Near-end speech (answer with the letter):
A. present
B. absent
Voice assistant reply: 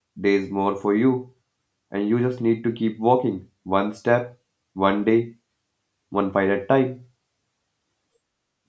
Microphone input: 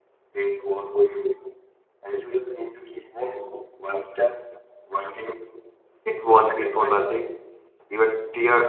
A